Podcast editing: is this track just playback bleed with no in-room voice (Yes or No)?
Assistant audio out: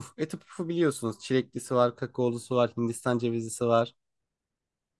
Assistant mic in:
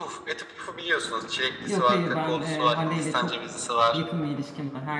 No